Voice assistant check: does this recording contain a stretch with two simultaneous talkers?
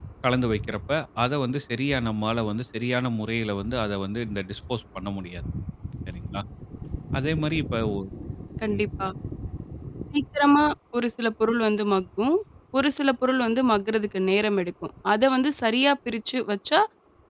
No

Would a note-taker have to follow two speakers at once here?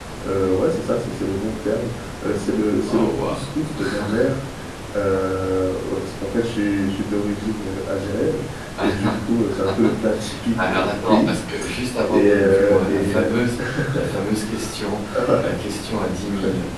Yes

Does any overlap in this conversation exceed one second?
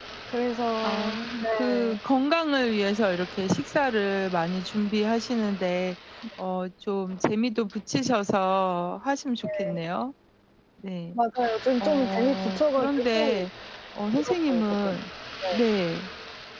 Yes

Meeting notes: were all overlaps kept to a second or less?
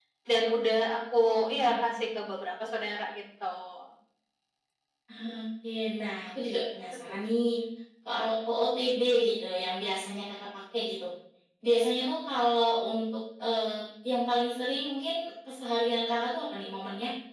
Yes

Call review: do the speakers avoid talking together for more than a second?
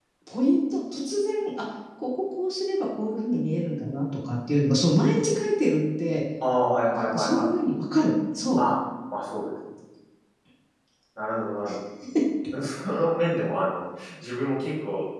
Yes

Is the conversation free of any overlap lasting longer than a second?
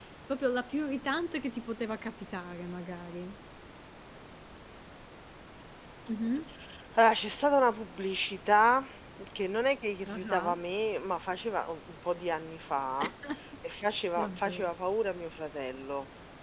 Yes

